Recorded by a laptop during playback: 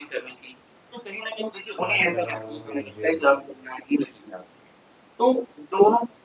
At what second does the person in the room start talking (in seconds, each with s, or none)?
1.8 s